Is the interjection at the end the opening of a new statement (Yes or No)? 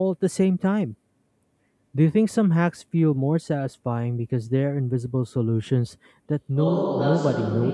Yes